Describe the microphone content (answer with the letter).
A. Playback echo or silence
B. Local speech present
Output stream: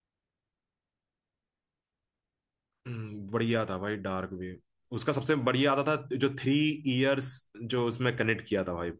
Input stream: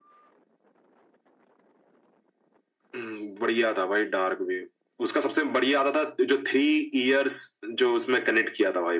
A